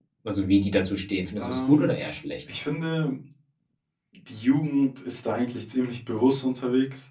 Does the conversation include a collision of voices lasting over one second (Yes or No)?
No